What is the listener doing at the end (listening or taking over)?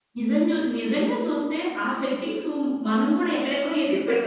taking over